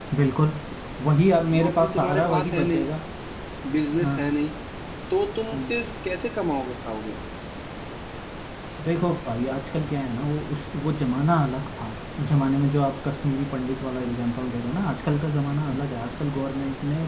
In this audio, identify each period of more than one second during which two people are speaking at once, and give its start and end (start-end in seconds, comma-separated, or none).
1.6-2.8